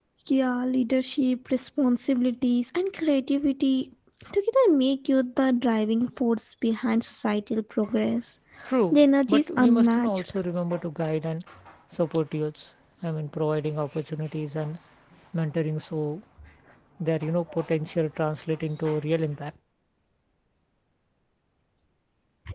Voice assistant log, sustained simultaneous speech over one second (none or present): present